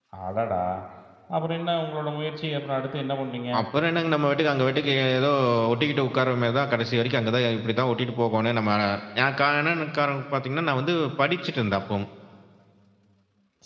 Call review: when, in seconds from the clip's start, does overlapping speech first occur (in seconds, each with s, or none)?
none